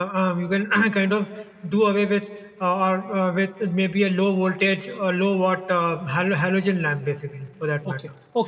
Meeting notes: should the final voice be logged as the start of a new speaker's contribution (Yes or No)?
Yes